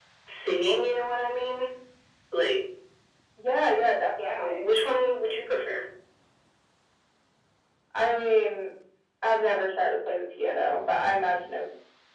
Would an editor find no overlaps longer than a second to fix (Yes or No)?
Yes